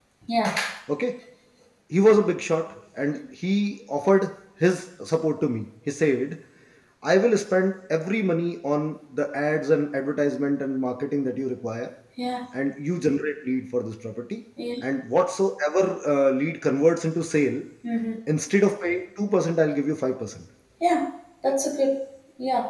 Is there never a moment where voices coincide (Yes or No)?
Yes